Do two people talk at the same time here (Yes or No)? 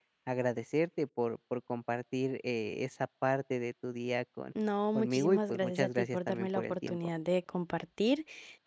Yes